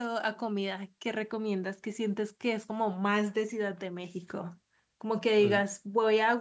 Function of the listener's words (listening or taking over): listening